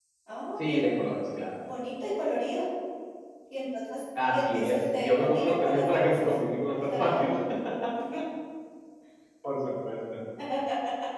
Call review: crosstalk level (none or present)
present